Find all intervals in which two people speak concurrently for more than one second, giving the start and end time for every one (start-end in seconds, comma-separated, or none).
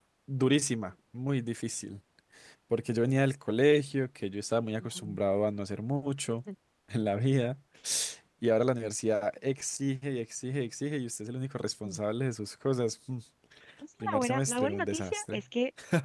14.0-15.4